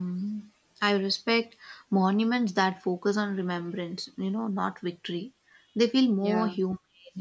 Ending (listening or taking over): listening